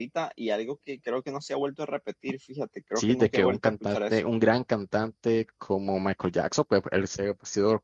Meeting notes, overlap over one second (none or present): present